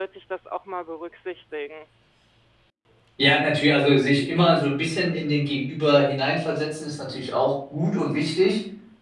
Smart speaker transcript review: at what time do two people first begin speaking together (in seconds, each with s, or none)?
none